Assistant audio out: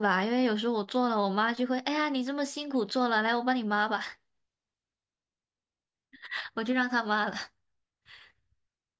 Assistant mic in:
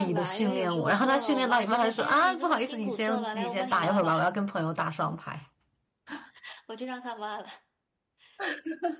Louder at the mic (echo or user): user